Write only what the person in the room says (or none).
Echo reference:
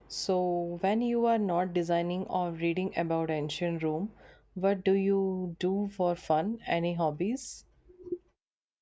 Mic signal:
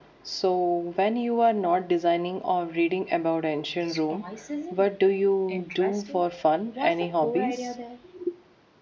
Stoicism. Interesting. What's the core idea there?